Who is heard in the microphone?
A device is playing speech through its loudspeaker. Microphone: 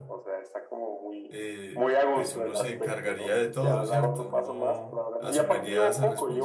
both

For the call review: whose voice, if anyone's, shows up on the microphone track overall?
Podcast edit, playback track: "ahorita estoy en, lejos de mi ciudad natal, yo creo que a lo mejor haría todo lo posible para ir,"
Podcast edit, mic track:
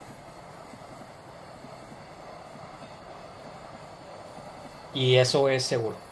user only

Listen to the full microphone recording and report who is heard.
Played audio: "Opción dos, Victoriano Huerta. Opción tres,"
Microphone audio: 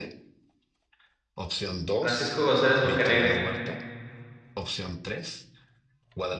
both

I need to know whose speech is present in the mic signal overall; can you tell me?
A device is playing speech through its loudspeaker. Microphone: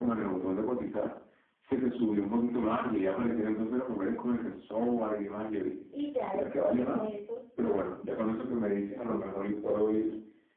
both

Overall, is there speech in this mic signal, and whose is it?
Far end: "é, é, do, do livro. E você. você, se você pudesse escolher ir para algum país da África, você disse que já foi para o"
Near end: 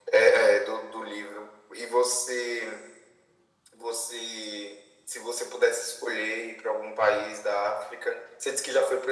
echo only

